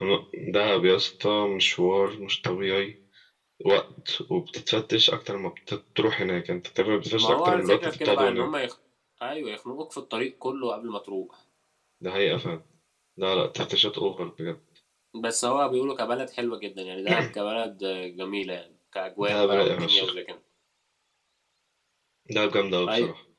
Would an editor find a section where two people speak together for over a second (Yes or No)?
Yes